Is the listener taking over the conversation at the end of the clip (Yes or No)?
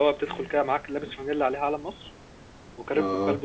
No